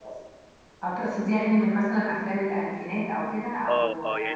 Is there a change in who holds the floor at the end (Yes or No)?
Yes